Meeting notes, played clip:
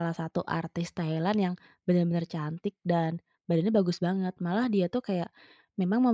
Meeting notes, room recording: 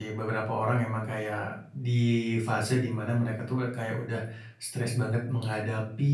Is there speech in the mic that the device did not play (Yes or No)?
Yes